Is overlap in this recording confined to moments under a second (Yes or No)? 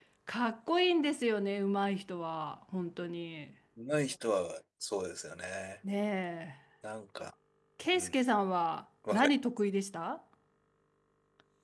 Yes